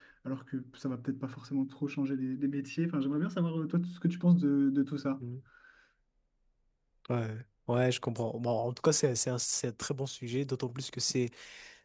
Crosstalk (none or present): none